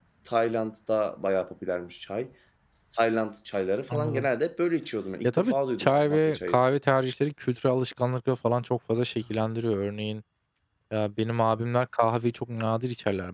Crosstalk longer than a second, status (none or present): present